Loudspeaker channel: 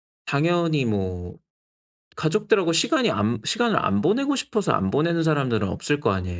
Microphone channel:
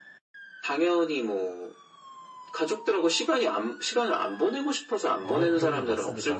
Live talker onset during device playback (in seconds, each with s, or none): 5.2 s